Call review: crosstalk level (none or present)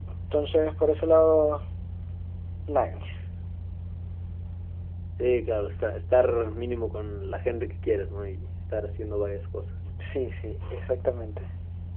none